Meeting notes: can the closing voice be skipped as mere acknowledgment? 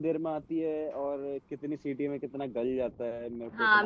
No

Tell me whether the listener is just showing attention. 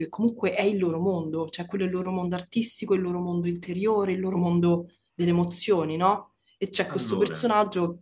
Yes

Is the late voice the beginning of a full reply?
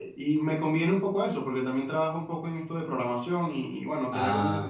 No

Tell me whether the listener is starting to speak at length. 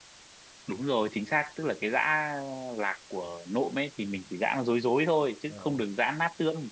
No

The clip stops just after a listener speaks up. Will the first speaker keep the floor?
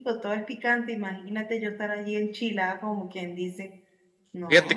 No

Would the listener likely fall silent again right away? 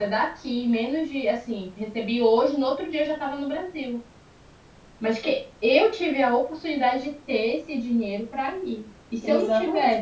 No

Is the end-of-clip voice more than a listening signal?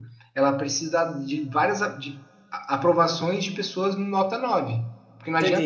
No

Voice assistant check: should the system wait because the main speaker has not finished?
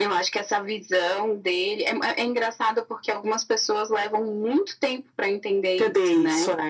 No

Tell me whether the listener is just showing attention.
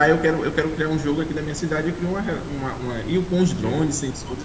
Yes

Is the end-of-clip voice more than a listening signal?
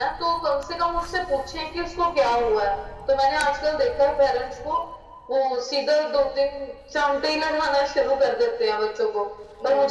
No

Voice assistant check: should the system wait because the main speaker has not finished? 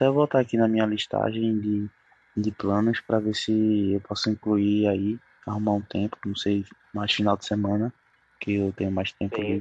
No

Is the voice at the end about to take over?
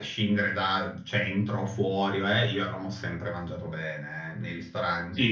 No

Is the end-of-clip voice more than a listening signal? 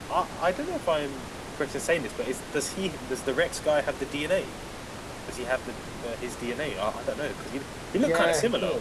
Yes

